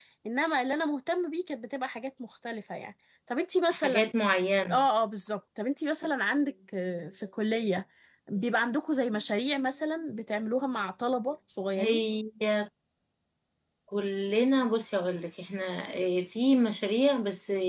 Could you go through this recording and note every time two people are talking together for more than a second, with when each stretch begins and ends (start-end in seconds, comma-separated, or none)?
none